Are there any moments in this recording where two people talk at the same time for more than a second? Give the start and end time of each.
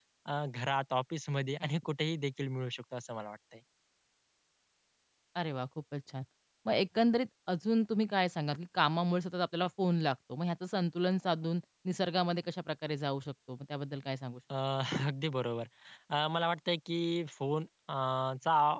none

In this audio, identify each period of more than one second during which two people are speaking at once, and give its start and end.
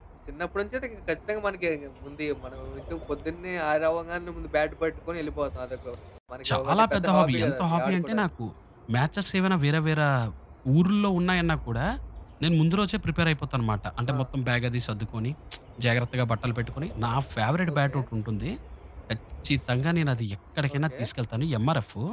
6.5-8.2

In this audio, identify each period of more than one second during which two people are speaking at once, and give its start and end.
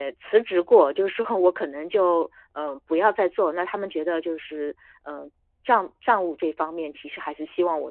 none

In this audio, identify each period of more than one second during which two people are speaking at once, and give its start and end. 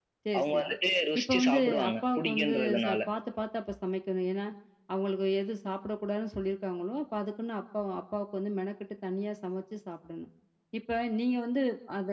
1.2-3.0

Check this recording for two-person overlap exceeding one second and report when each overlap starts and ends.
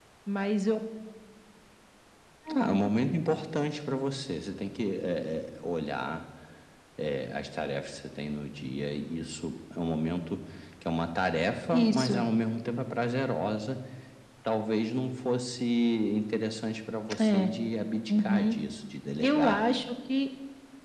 none

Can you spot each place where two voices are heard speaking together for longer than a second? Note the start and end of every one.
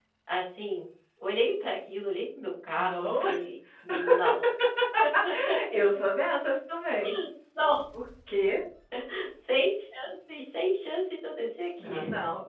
none

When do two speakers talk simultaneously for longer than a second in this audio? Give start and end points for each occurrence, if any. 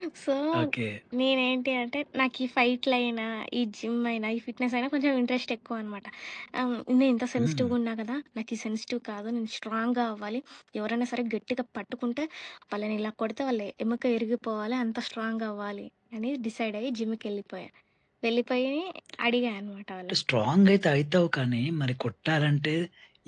none

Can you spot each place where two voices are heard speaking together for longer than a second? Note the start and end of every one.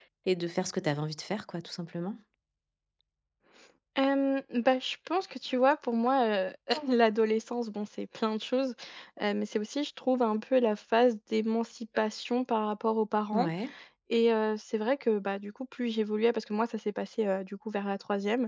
none

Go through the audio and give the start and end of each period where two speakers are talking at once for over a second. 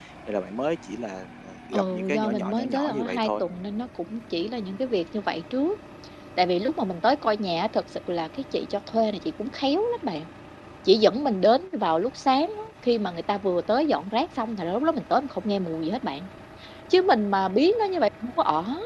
1.7-3.4

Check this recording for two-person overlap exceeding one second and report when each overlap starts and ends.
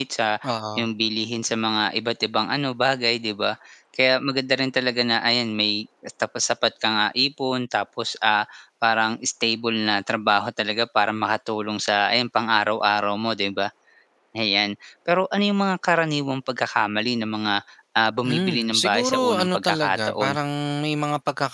18.3-20.3

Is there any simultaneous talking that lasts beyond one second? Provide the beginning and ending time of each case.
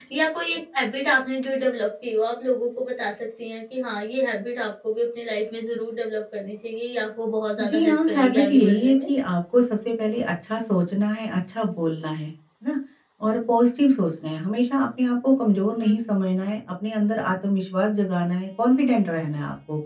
7.6-9.1

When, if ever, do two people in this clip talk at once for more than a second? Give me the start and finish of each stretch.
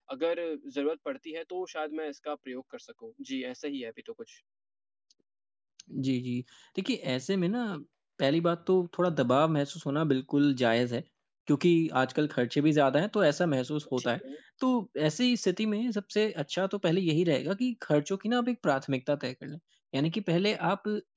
none

